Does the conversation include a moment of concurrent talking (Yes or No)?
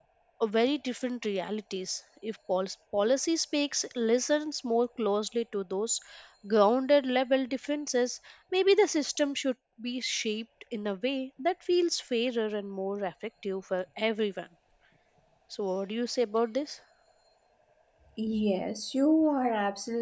No